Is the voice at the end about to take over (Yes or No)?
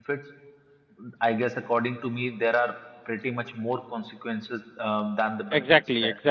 Yes